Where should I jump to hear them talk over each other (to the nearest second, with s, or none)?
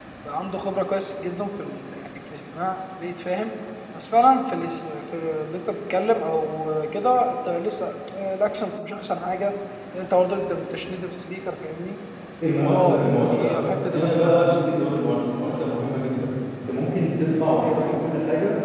13 s